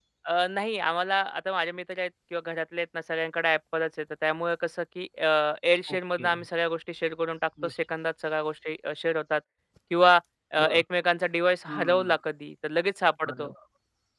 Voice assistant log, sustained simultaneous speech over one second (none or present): none